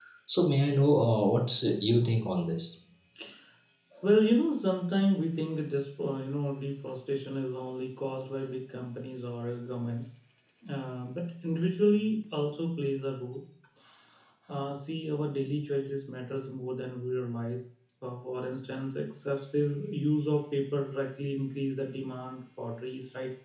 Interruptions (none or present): none